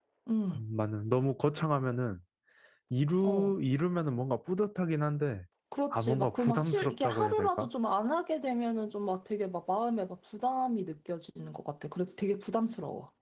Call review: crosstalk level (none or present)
present